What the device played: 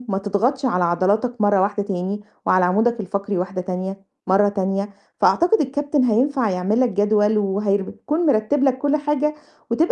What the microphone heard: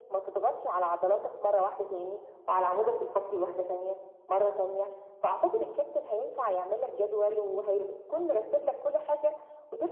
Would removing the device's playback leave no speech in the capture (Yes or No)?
Yes